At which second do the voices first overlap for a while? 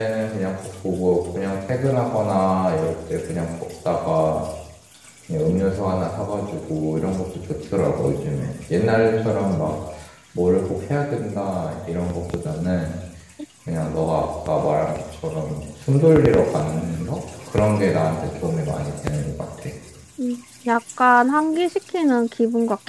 none

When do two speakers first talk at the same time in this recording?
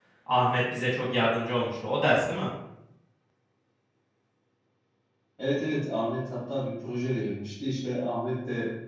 none

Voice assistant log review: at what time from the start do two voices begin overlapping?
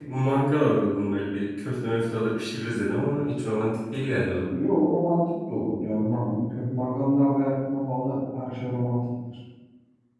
none

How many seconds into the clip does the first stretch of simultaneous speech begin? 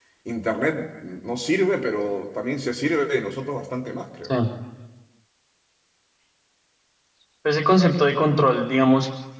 none

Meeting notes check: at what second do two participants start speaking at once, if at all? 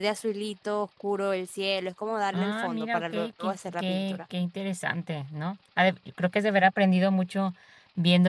2.3 s

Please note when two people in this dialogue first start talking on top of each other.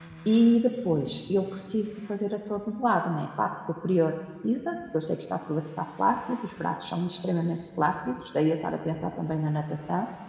none

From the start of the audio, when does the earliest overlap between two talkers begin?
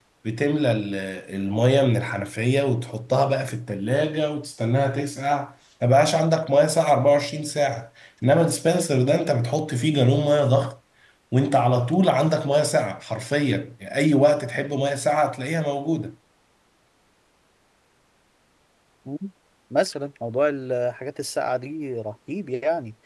none

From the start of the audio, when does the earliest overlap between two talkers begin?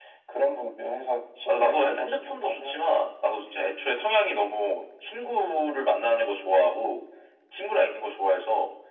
1.5 s

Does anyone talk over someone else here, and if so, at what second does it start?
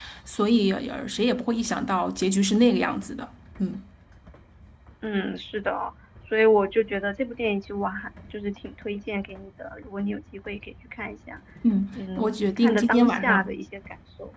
12.0 s

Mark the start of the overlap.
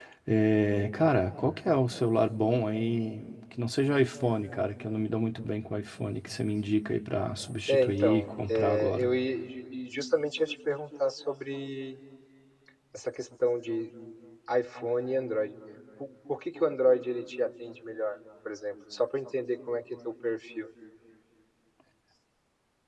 7.7 s

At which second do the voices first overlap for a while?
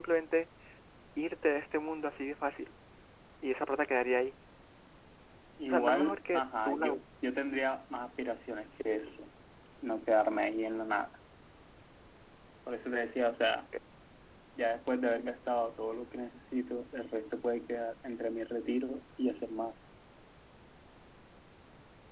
5.7 s

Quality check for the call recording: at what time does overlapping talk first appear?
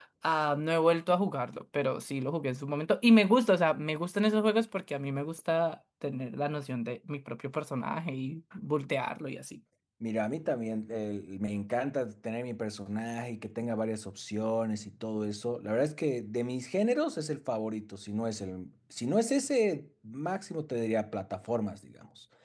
none

